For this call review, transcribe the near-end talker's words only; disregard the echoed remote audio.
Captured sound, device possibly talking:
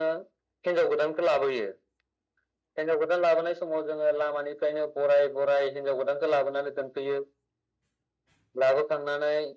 none

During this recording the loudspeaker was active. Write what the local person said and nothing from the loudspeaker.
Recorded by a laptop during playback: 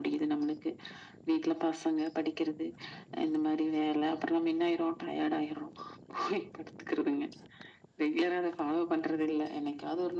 none

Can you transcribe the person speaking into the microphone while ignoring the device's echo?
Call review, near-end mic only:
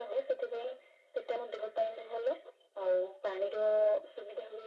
none

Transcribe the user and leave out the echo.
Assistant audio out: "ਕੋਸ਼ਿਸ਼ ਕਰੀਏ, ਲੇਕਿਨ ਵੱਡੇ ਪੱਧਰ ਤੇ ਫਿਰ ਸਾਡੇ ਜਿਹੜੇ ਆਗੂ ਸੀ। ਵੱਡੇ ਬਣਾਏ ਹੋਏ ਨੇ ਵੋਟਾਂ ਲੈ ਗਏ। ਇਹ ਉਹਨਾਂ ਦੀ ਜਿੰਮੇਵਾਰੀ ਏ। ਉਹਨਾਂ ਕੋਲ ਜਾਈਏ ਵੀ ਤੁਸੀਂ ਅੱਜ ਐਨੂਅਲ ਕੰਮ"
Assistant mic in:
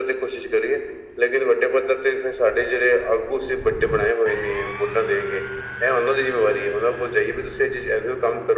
none

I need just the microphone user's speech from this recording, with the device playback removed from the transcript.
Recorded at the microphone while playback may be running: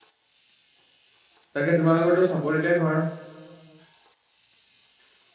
তাকে তোমালোকৰতো চাপৰিতে ঘৰ?

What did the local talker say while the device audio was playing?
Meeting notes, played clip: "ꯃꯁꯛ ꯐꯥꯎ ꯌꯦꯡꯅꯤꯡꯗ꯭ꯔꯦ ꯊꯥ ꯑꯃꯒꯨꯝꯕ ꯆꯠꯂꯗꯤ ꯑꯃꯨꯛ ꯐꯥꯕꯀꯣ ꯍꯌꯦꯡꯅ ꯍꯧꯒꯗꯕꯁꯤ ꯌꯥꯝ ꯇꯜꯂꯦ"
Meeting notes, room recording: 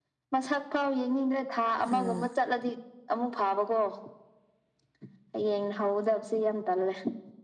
ꯑꯥ

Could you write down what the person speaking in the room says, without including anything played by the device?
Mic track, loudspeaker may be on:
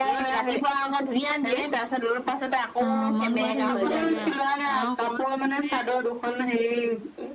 অ মন কৰি থাকিব লাগে আৰু গৰু ছাগলী।

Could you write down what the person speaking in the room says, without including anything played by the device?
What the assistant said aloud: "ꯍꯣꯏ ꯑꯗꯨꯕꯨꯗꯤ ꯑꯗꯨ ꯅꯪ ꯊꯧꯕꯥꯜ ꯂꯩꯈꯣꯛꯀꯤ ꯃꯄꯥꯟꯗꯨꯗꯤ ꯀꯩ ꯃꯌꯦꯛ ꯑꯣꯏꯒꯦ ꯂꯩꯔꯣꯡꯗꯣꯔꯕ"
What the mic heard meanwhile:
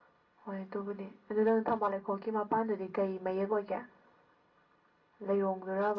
none

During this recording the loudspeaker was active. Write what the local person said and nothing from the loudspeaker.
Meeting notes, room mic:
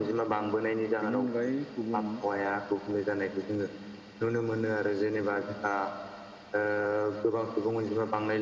बिनि अनगायै गुबुन

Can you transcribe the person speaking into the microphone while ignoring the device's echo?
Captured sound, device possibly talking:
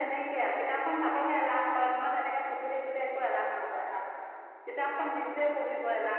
none

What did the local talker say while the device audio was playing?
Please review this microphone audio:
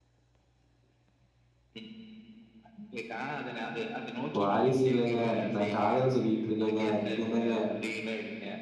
வாரிசு இல்லங்க நா காதல் சொல்லிட் இருக்கேங்க நீங்க என்னங்க

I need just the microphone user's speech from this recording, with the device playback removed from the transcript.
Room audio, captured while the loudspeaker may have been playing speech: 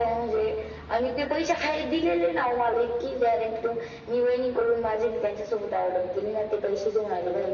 none

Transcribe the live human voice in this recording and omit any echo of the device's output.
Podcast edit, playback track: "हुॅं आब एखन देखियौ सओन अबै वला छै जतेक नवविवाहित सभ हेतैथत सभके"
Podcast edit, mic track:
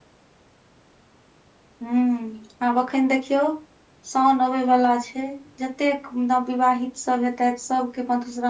none

